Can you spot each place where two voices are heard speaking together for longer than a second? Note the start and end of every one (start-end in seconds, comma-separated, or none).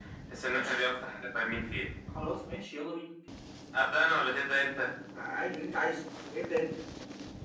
none